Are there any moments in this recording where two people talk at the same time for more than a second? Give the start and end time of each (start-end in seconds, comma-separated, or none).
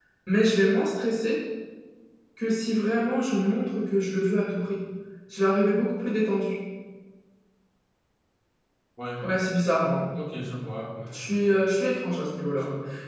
none